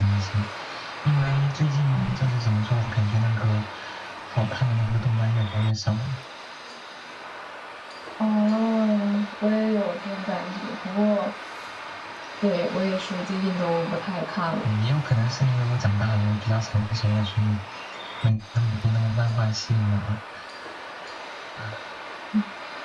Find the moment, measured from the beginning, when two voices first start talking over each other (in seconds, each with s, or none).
none